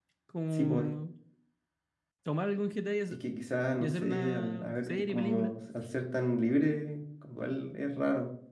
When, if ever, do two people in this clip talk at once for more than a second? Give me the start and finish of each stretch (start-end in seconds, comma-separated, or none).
3.8-5.5